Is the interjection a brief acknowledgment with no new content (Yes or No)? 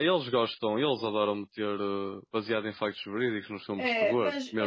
No